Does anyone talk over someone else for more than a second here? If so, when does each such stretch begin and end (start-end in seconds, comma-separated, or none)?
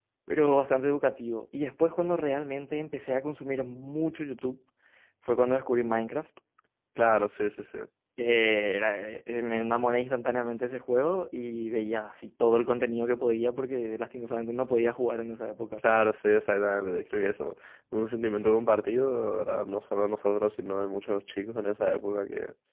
none